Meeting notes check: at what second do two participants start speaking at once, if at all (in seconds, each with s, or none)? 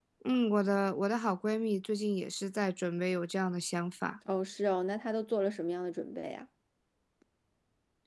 none